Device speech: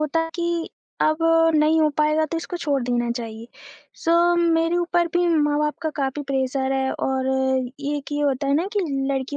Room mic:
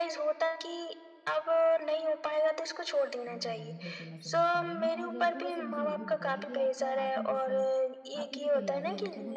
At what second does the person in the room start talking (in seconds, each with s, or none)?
3.3 s